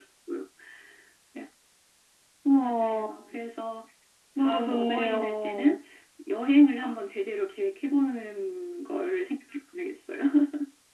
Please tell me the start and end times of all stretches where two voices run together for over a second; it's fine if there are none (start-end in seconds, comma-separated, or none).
4.4-5.8